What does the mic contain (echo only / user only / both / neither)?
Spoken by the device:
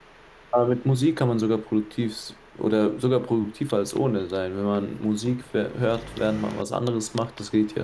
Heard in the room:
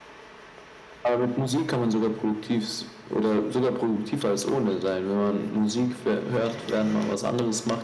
echo only